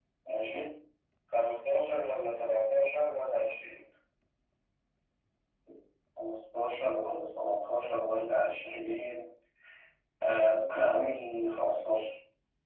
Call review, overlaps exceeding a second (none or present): none